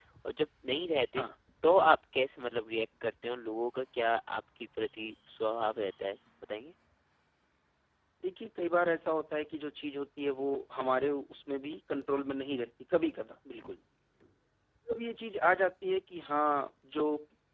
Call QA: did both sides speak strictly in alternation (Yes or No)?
Yes